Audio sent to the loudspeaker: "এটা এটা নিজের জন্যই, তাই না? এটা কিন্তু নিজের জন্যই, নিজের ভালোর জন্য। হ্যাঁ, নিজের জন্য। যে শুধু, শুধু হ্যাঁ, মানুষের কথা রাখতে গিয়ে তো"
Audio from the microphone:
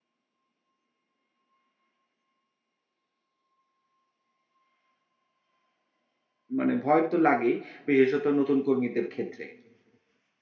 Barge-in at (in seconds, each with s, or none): 6.6 s